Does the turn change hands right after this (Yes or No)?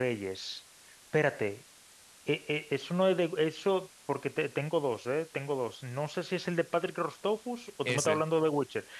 No